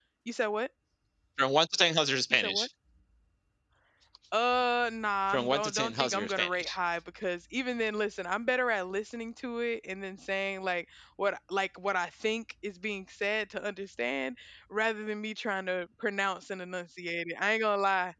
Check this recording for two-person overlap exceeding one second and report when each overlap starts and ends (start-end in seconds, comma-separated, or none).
5.3-6.8